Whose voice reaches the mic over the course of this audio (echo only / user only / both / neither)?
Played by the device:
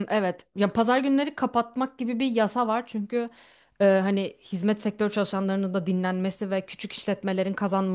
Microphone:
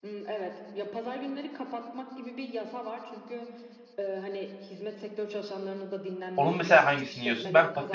both